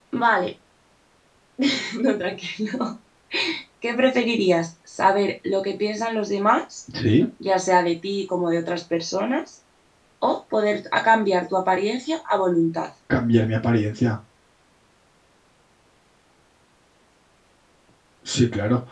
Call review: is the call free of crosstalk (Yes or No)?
Yes